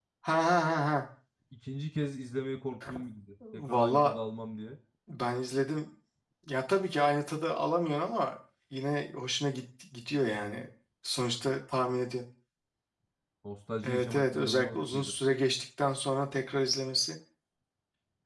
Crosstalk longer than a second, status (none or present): present